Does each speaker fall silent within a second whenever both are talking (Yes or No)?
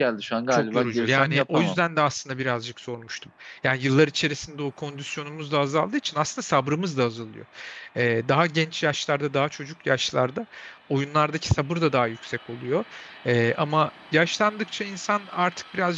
No